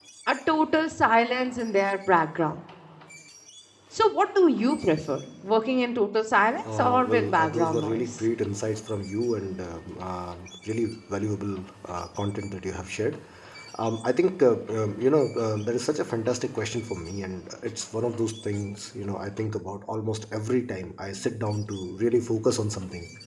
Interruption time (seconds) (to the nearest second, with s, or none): 7 s